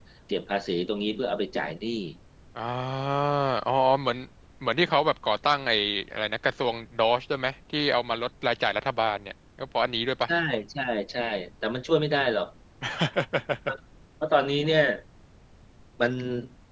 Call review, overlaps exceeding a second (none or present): none